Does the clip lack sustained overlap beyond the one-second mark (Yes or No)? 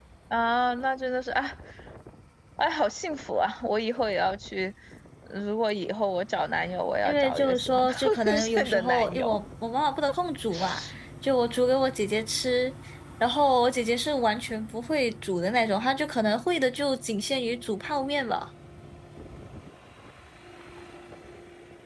No